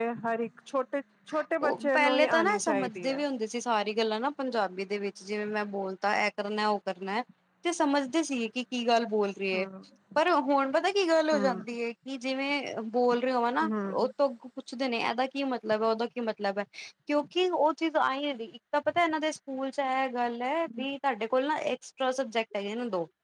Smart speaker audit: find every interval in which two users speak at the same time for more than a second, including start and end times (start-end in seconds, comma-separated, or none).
1.7-3.2